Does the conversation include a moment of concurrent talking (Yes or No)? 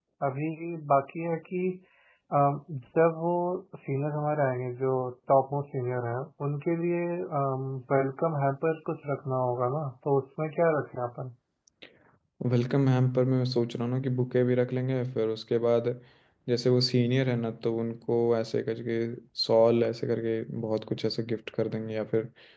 No